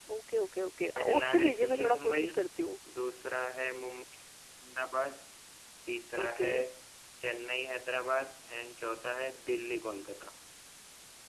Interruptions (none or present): present